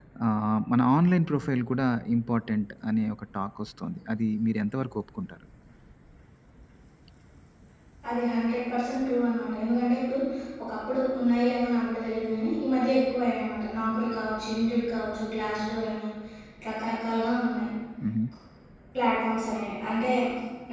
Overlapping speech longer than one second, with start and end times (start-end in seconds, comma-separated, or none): none